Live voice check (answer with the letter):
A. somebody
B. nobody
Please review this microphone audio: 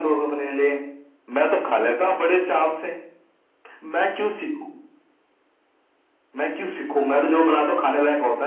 B